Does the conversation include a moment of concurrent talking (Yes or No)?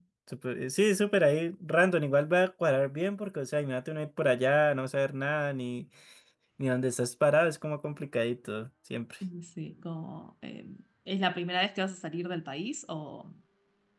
No